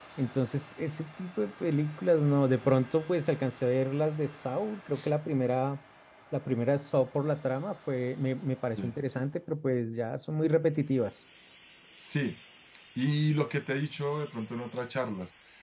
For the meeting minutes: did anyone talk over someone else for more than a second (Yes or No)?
No